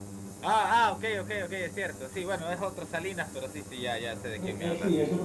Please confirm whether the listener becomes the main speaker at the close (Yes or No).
Yes